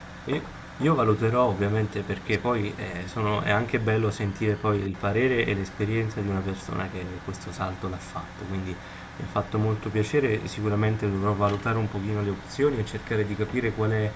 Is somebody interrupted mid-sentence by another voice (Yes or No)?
No